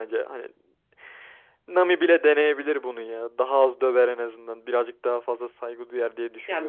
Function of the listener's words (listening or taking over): taking over